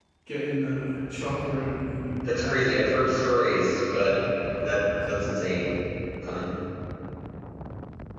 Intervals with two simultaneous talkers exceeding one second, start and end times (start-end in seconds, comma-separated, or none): none